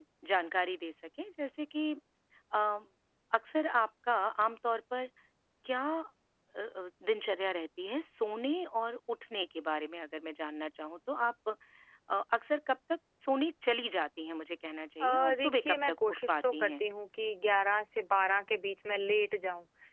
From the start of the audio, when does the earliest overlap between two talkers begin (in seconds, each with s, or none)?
15.0 s